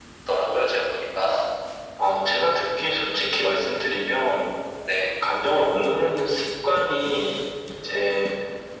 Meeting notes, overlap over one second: none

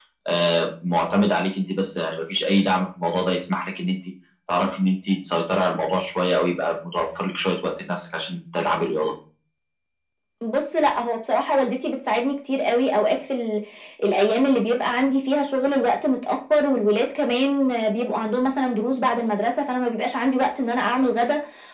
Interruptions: none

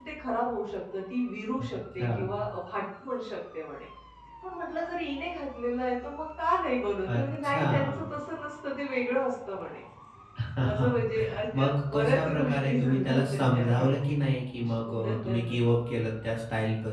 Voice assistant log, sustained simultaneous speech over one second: present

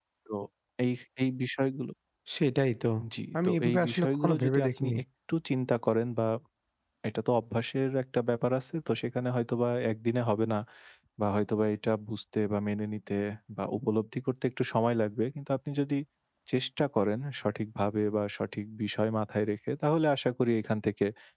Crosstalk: present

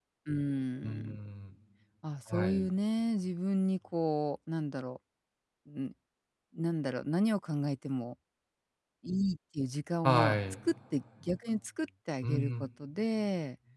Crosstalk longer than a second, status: none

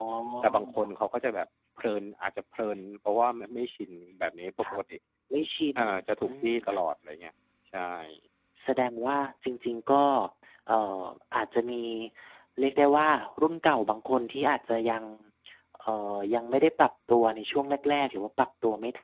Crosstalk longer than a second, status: none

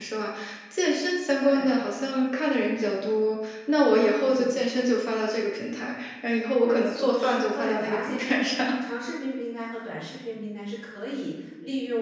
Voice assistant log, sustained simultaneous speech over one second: present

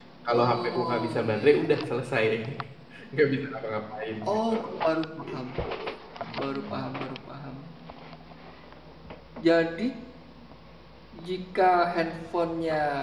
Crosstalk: present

